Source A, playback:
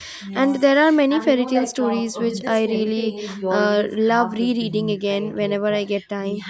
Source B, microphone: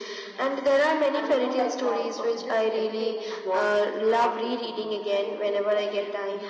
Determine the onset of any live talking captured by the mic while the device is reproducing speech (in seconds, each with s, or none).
none